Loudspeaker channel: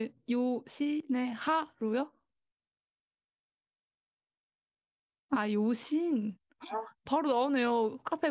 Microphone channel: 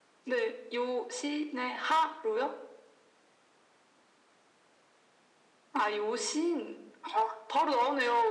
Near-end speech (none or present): none